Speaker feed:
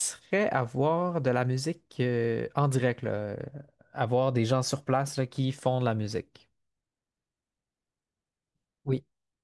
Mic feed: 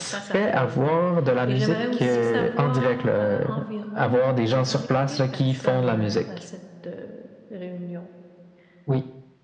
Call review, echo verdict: present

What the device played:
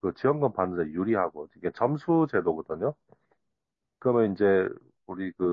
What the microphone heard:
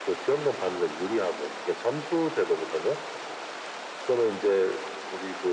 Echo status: present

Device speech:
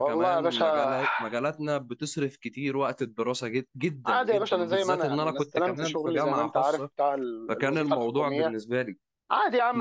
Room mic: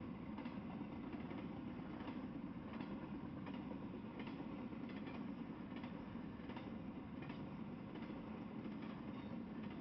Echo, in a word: none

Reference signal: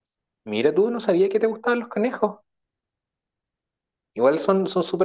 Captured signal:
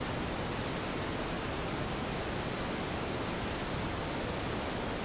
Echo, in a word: none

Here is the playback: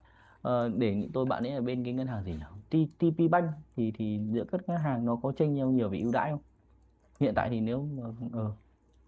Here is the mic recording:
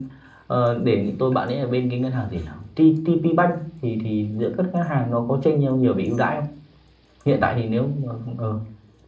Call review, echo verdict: present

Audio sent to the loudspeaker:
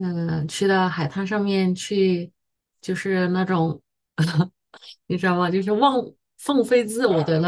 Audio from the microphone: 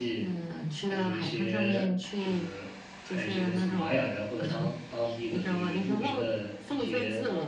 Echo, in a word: present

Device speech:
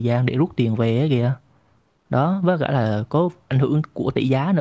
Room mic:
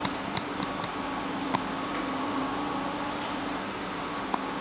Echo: none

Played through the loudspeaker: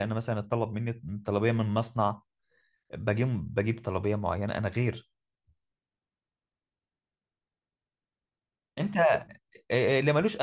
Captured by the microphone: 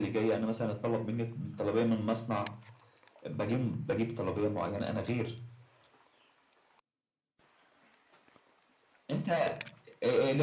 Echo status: present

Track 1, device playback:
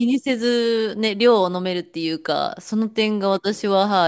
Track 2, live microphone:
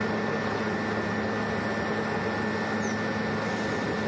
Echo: none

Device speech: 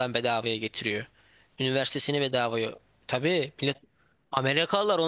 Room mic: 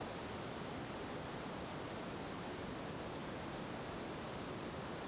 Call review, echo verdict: none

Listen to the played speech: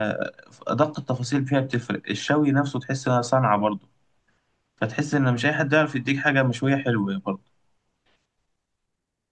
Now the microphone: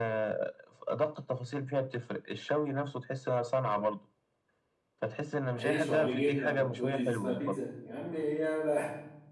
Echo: present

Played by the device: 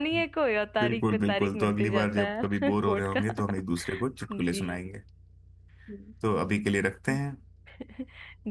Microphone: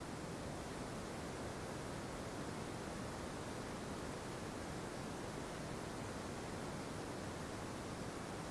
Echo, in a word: none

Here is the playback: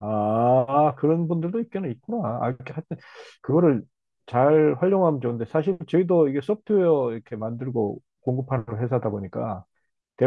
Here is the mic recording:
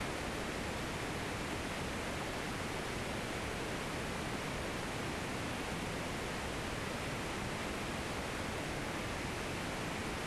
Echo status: none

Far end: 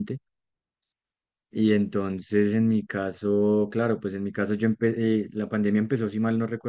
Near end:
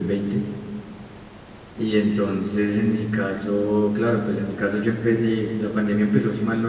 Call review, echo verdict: present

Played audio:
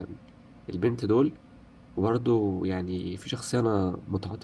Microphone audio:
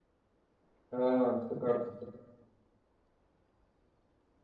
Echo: none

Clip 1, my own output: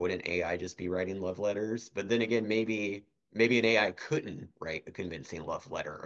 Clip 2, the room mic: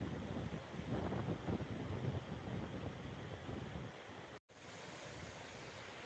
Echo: none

